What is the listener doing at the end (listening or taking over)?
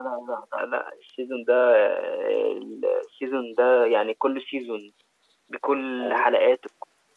listening